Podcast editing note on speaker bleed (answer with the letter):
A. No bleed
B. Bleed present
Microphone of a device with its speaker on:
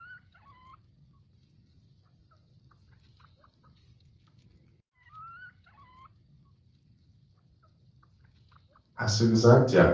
A